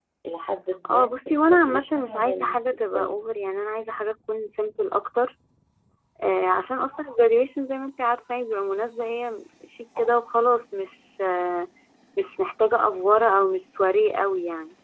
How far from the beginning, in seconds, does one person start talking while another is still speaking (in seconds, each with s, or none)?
0.9 s